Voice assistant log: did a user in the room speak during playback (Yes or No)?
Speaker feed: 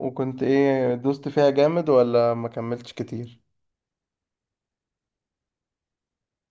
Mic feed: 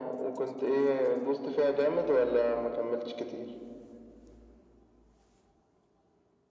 No